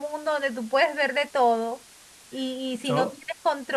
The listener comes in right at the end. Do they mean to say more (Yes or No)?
No